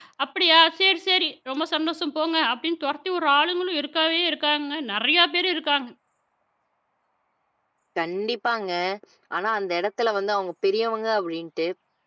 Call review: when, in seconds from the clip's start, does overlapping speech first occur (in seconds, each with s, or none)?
none